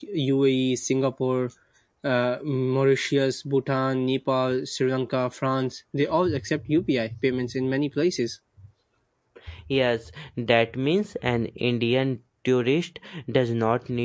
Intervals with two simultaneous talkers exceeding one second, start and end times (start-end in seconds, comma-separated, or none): none